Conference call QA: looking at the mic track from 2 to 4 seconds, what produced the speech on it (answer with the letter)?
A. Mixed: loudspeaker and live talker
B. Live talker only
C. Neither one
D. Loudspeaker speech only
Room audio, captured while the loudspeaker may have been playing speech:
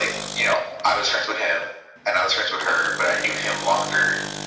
D